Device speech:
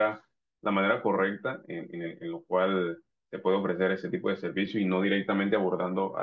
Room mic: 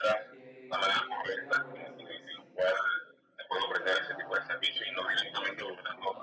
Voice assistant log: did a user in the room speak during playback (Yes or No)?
Yes